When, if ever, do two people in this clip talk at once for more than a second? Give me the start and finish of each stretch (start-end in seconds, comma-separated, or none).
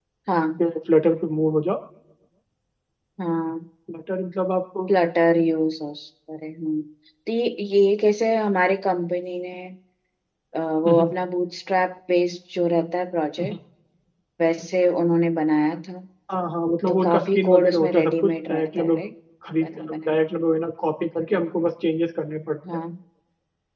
16.9-19.0